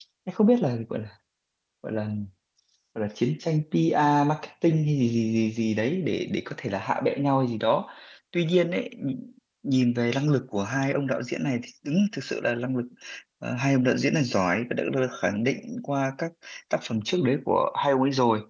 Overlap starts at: none

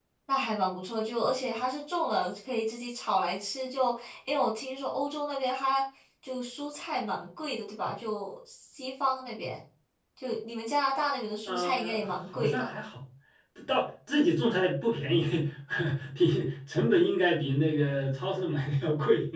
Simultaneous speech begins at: 11.4 s

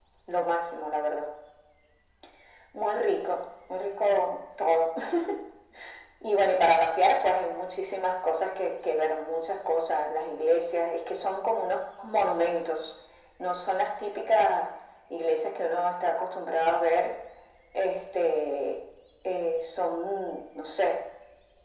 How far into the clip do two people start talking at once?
none

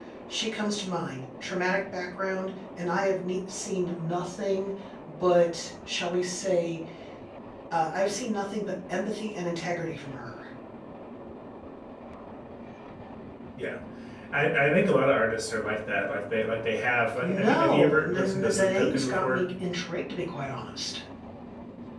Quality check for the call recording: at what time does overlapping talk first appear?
17.2 s

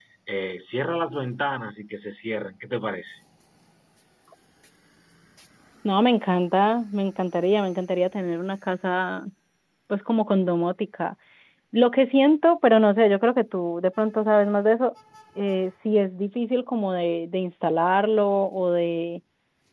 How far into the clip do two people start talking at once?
none

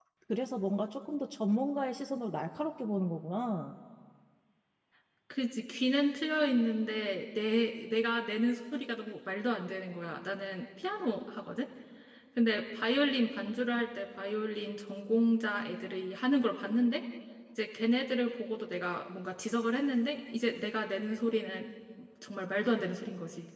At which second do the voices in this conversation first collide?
none

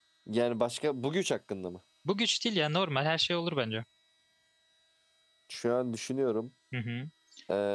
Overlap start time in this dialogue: none

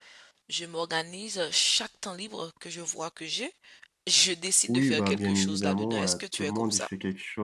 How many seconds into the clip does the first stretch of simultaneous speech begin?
4.7 s

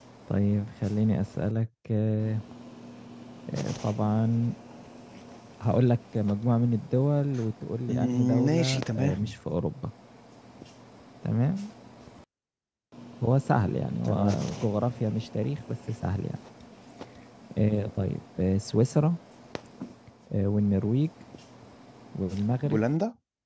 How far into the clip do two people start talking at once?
7.9 s

